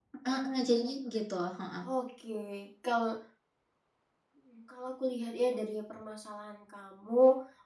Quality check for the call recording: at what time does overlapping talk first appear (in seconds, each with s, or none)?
none